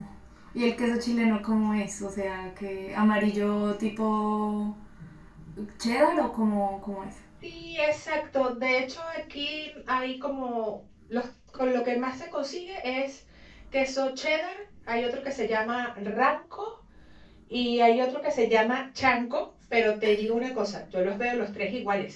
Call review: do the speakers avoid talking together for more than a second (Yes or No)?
Yes